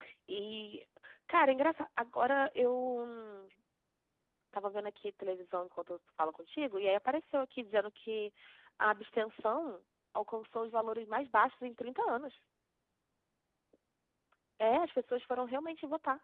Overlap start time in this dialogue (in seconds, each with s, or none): none